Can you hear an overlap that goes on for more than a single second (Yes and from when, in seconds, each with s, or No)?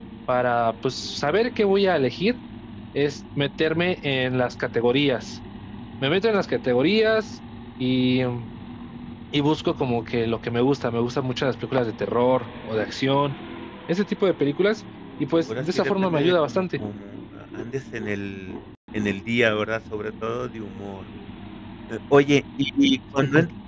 Yes, from 15.5 s